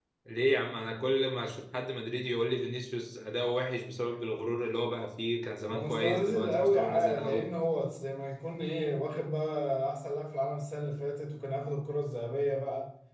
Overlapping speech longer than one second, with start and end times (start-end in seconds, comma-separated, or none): 5.7-7.5